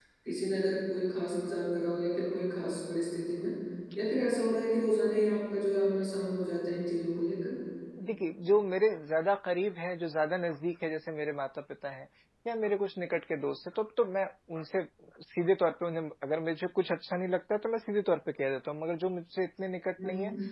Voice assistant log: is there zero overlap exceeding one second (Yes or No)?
Yes